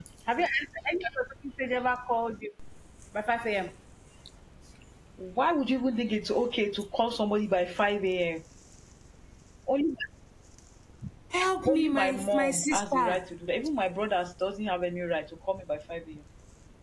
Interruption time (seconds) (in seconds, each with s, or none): 11.6 s